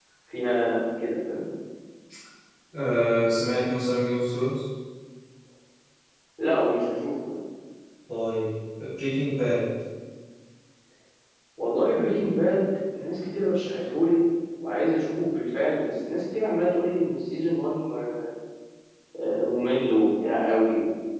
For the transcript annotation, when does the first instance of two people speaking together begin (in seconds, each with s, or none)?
none